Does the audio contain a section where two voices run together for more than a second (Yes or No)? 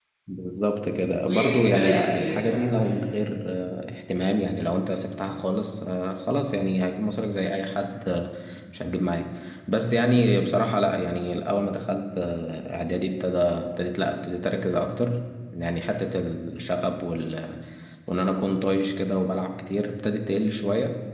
Yes